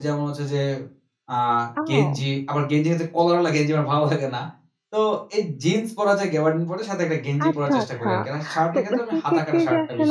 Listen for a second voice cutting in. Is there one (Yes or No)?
Yes